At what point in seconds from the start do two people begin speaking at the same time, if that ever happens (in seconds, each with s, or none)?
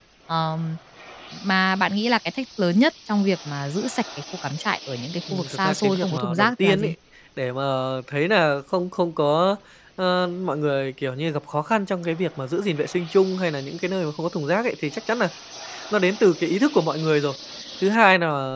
5.3 s